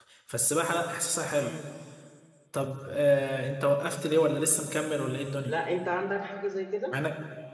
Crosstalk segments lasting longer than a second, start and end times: none

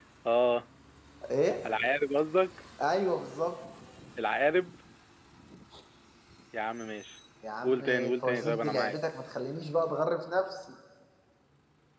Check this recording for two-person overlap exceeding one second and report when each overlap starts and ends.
7.6-9.0

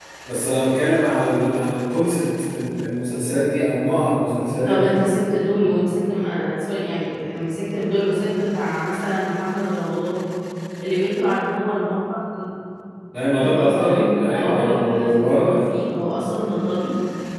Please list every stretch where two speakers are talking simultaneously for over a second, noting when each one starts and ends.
13.4-15.6

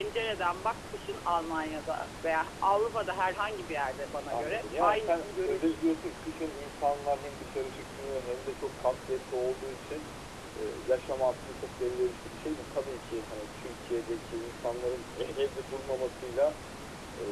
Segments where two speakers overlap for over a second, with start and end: 4.3-5.8

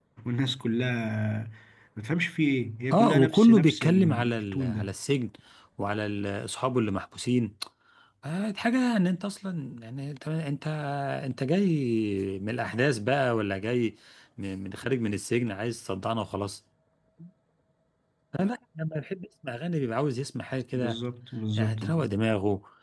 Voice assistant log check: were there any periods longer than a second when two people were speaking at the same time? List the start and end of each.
2.9-4.9

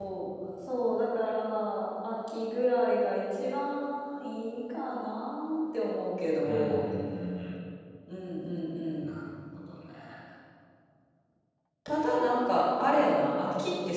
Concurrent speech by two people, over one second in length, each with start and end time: none

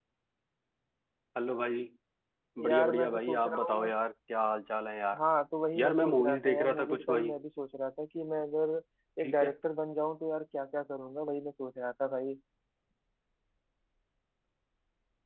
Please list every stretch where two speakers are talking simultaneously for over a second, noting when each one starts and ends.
2.6-3.9, 5.8-7.3

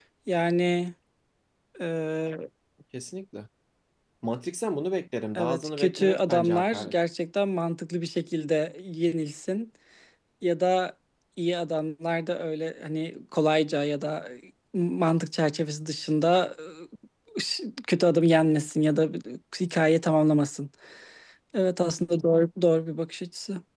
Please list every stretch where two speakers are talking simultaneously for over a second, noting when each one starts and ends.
5.4-6.9

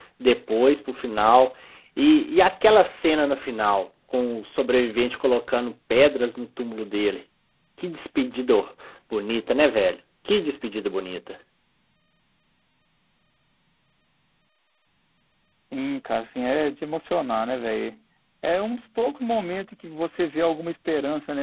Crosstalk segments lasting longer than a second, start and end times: none

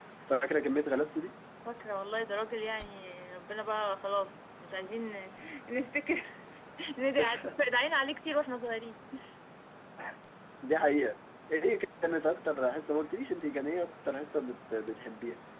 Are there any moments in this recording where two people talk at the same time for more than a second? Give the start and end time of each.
none

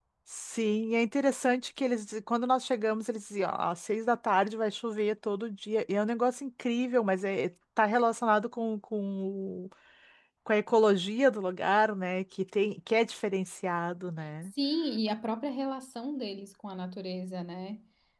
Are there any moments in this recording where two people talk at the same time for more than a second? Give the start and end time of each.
none

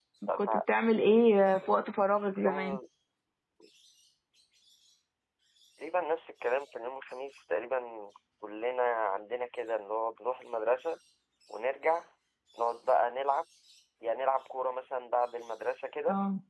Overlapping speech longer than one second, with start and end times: none

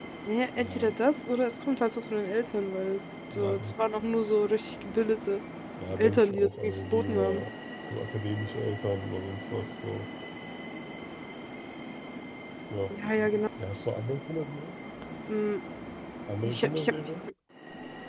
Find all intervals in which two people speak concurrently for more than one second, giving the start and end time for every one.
6.0-7.4

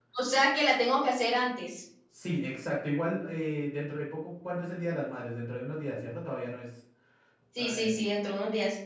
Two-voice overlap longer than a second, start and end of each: none

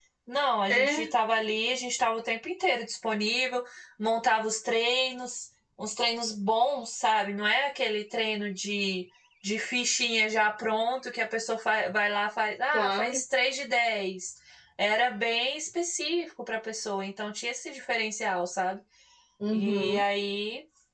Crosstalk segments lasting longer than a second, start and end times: none

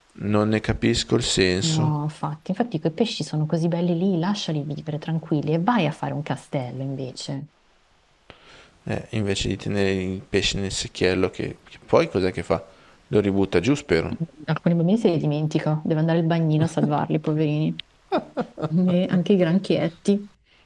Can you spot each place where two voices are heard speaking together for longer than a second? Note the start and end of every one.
none

